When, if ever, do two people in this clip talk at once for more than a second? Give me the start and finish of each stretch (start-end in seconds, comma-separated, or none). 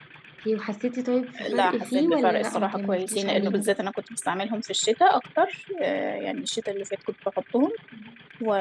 1.6-3.7